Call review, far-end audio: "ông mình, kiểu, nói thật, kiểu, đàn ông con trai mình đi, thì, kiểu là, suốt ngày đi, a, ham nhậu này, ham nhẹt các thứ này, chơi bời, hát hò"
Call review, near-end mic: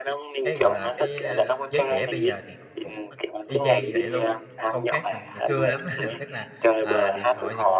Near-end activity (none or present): present